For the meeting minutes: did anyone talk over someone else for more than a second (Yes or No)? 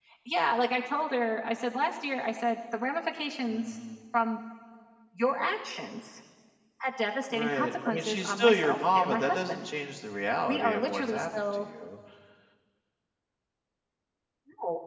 Yes